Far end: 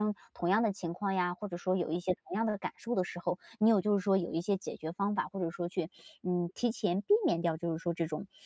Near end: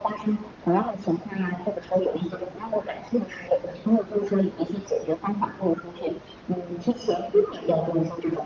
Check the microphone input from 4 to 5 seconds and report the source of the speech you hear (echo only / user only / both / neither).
echo only